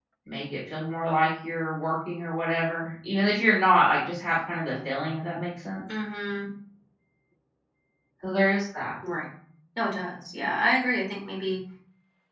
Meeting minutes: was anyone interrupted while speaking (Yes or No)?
No